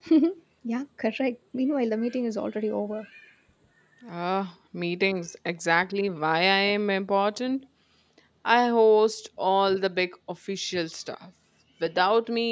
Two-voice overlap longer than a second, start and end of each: none

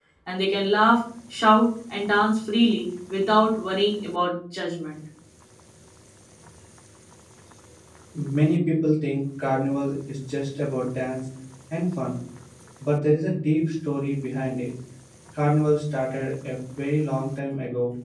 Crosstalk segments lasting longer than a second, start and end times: none

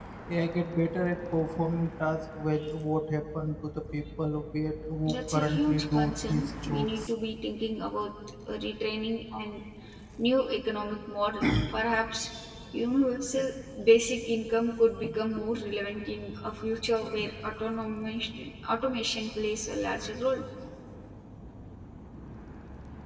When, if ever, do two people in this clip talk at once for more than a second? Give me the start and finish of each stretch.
5.1-7.1

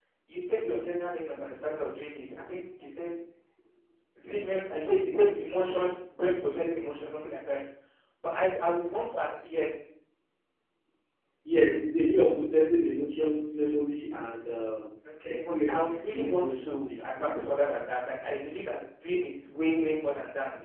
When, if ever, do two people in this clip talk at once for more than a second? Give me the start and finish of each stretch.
15.2-16.9

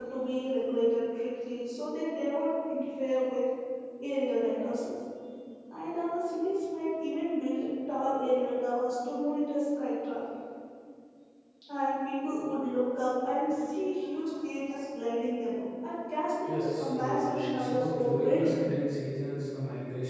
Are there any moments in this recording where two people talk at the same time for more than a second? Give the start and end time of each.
16.5-18.6

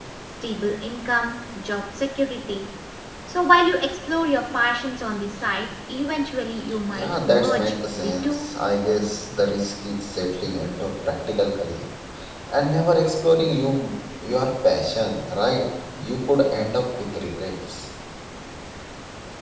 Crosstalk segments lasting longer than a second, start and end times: 7.0-8.4

